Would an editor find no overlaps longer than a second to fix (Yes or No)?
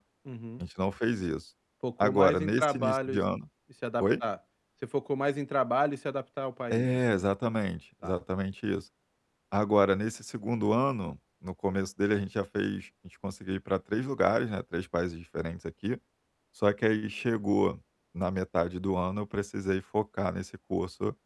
No